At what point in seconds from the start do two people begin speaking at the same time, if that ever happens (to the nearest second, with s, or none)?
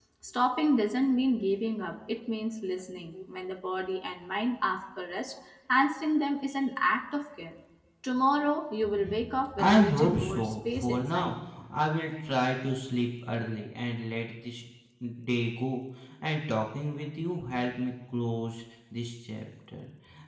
9 s